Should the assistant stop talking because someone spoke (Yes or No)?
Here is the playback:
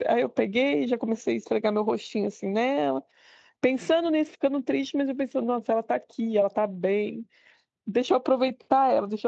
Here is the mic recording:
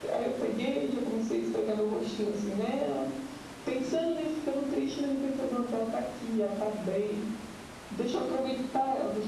No